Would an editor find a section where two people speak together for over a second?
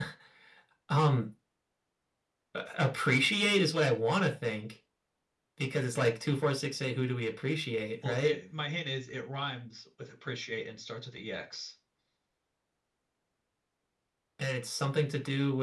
No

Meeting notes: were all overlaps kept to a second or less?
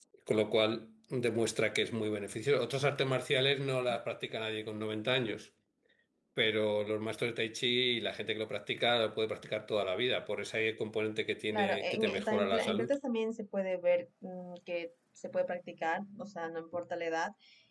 No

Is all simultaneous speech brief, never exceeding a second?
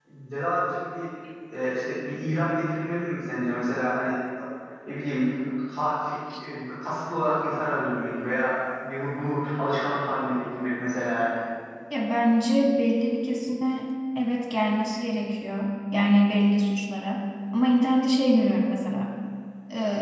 Yes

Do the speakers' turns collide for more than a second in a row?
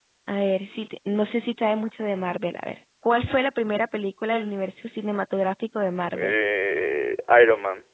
No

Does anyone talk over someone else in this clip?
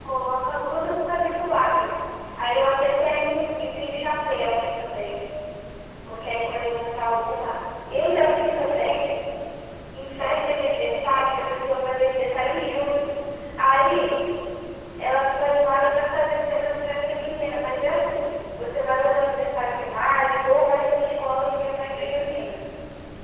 No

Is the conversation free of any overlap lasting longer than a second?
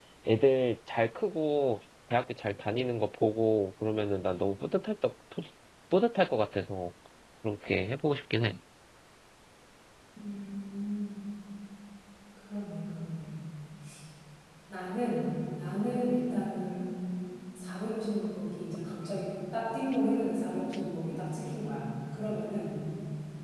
Yes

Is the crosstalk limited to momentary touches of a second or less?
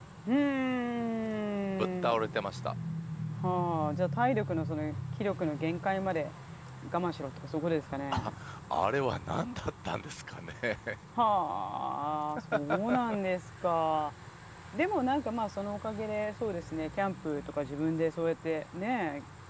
Yes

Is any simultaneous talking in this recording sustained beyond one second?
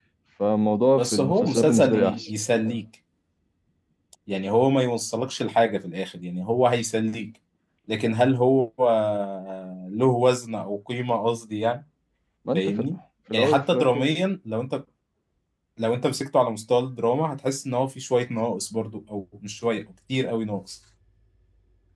Yes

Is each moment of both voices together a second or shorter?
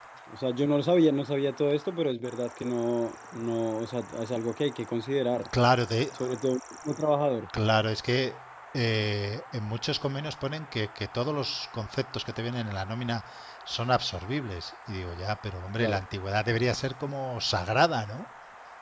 Yes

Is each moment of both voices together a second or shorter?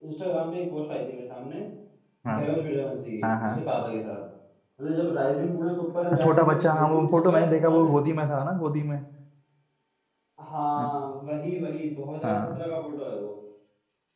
No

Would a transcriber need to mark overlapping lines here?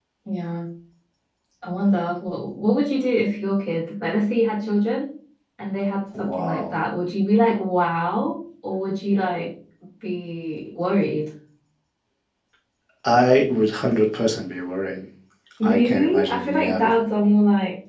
Yes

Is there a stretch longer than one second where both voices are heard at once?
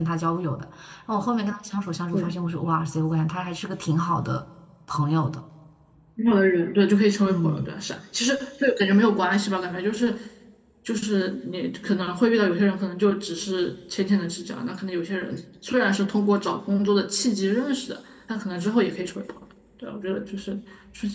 No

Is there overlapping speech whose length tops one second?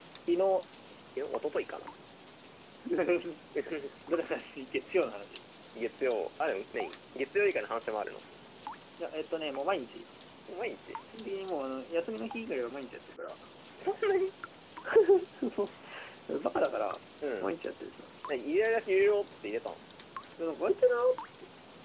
No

